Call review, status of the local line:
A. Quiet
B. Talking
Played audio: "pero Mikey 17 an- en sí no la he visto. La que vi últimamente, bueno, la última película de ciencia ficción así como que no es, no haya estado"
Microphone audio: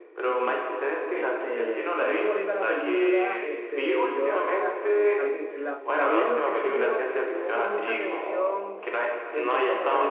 B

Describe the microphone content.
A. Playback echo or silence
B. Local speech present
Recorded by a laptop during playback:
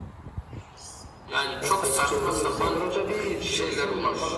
A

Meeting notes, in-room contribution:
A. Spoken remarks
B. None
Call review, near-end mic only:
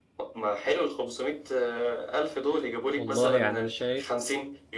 A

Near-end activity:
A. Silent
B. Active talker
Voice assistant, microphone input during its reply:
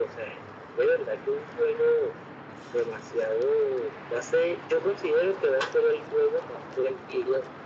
A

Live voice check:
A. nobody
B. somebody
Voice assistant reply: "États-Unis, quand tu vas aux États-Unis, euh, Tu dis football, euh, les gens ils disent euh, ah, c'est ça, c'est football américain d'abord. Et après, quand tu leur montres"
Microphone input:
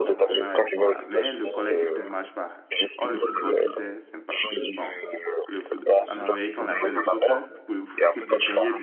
B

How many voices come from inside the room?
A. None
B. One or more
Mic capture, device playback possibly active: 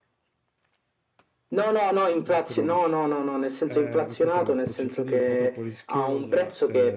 B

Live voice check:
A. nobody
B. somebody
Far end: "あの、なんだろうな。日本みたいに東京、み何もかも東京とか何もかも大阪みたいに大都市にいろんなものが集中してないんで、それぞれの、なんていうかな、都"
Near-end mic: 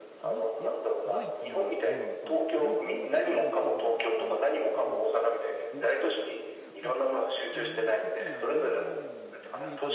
B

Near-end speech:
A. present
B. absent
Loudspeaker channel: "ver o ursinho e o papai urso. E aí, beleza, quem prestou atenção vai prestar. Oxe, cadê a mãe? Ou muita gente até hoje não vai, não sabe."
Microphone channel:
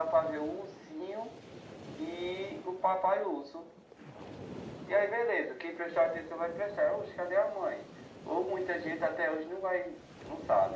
B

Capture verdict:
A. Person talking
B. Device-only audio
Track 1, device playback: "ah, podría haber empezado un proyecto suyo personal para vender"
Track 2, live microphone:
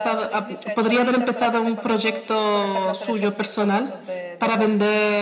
A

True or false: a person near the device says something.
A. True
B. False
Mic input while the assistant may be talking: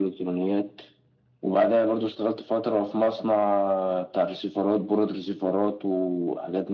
B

